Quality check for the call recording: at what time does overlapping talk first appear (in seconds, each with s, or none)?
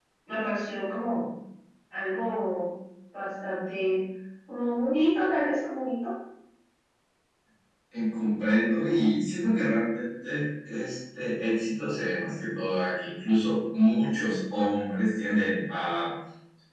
none